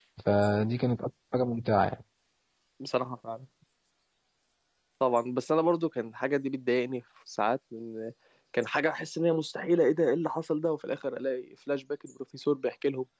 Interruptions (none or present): none